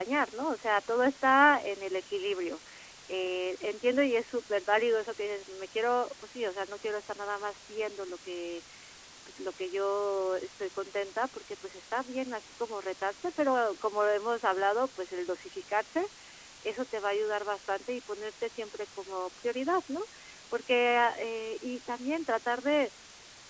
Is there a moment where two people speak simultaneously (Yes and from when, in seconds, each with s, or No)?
No